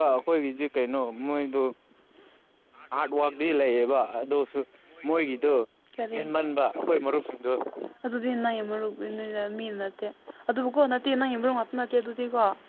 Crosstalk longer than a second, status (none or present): none